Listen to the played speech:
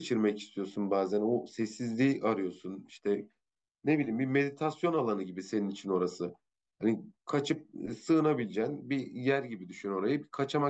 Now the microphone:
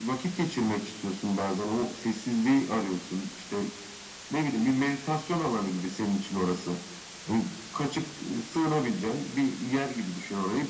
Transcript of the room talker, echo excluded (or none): none